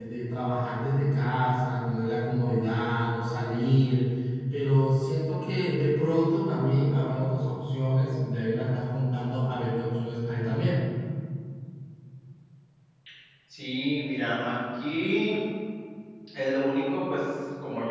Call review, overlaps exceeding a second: none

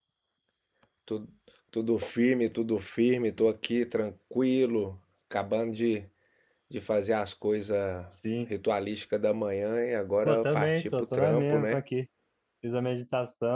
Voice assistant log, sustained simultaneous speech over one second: present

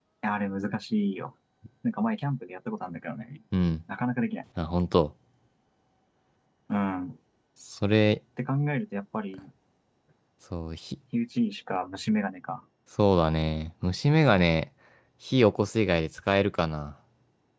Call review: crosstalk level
none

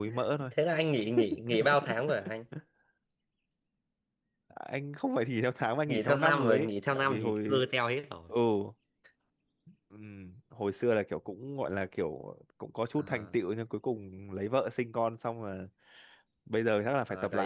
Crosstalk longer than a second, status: present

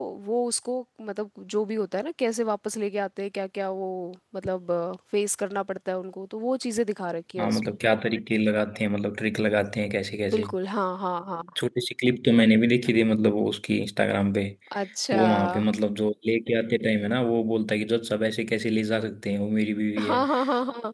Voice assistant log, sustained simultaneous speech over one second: none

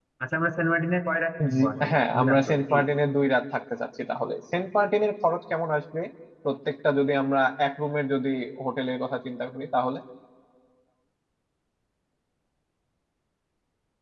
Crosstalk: present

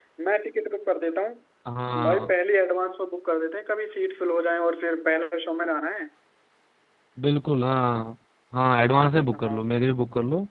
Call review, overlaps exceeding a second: none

